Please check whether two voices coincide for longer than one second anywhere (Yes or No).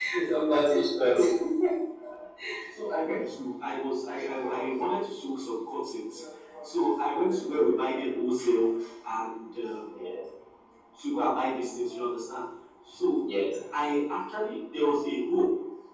No